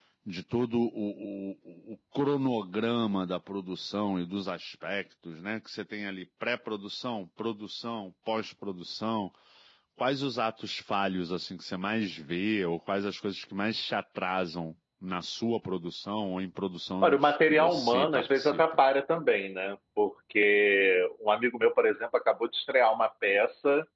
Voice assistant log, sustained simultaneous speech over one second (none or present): present